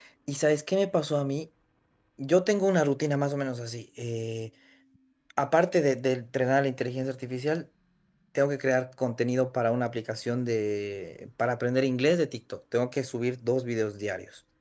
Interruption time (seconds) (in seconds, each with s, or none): none